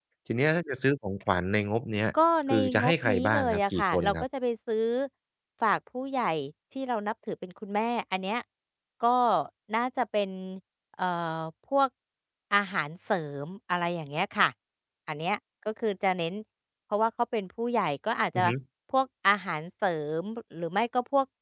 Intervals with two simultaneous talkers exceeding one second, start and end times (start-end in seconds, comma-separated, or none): 2.5-4.2